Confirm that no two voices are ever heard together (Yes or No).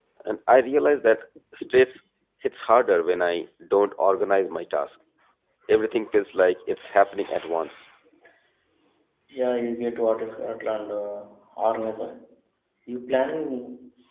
Yes